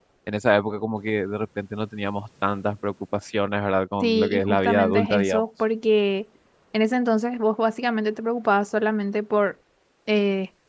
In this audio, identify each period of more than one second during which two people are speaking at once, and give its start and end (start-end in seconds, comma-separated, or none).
4.0-5.5